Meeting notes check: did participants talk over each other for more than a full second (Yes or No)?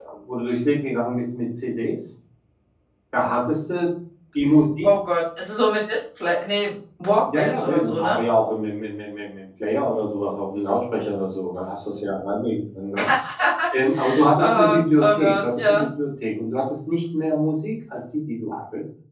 Yes